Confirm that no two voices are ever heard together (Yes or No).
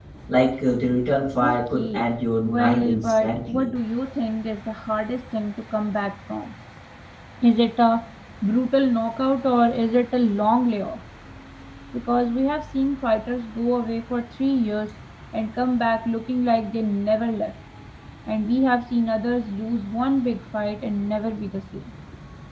No